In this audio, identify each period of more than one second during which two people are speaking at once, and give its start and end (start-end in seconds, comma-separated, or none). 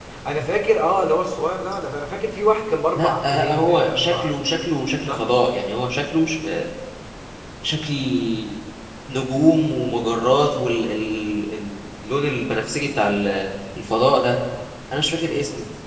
3.0-4.5